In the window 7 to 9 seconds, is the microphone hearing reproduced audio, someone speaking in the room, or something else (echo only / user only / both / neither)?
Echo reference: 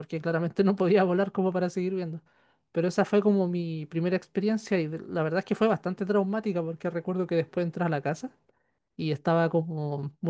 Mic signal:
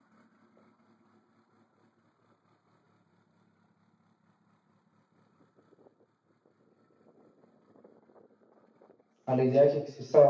neither